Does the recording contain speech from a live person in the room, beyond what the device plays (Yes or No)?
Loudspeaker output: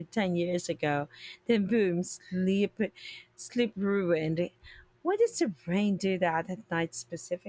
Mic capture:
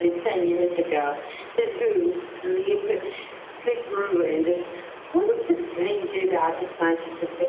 No